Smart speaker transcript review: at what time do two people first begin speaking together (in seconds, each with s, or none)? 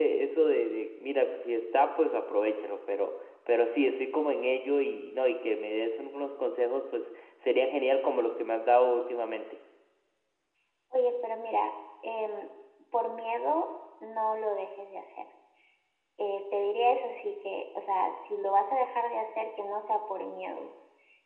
none